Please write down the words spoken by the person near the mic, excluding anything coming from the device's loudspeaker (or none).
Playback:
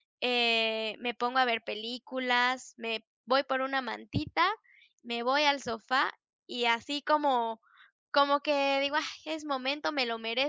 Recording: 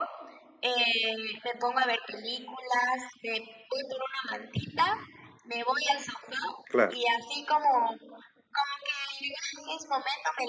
Claro.